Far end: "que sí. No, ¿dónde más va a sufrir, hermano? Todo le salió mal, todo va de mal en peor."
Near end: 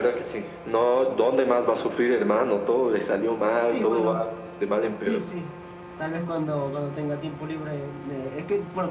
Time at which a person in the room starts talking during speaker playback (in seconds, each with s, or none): 3.7 s